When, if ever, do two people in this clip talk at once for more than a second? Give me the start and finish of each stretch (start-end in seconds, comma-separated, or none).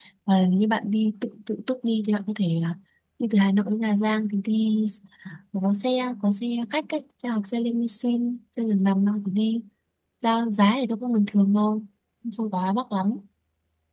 none